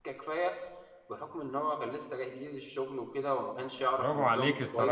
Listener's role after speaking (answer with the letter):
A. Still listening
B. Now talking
B